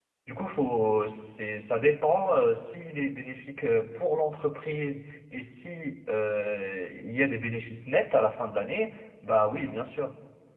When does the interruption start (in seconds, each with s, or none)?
none